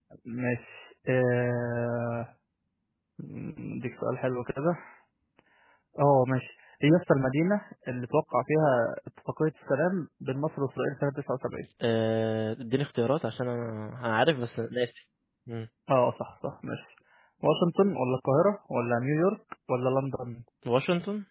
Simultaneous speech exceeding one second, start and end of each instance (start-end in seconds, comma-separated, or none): none